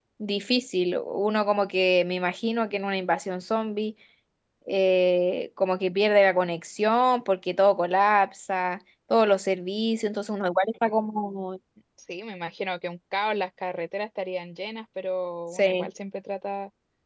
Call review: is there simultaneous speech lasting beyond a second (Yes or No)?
No